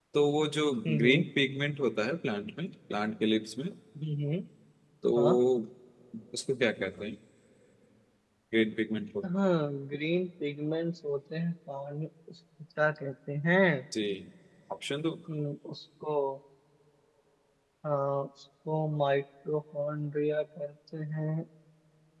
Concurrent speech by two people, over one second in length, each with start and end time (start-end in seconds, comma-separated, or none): none